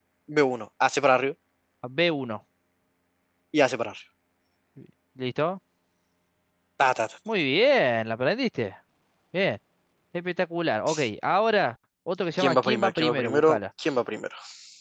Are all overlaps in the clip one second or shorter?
No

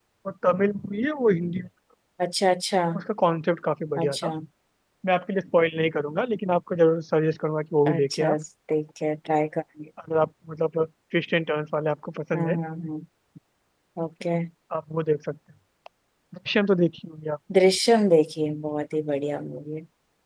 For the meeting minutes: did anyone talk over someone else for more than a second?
No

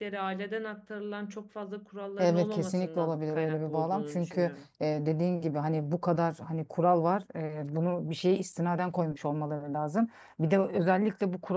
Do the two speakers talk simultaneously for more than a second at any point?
Yes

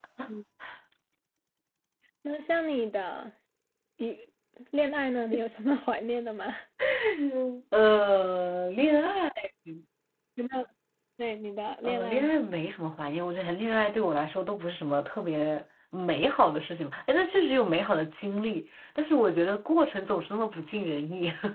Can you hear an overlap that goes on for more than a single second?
No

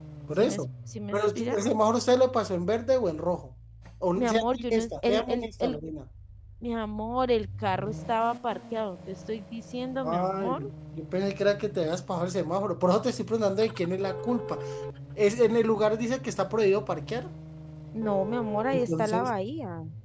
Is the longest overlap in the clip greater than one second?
Yes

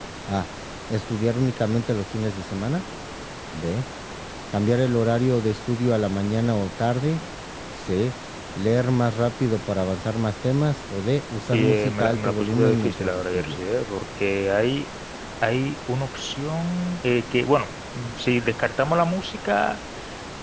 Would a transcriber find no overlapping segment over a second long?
No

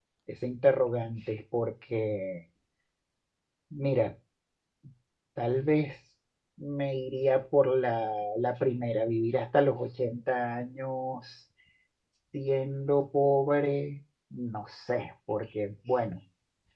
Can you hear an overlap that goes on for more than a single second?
No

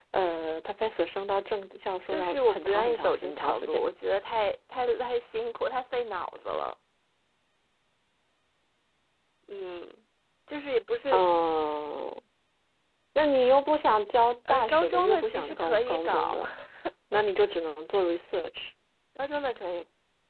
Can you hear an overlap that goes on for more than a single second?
Yes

